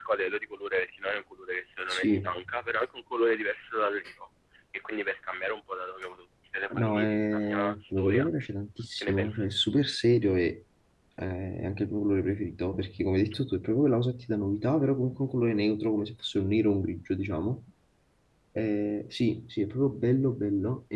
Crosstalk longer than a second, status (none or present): present